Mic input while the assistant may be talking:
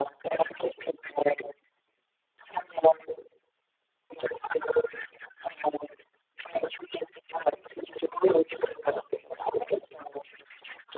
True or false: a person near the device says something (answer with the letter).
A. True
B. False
B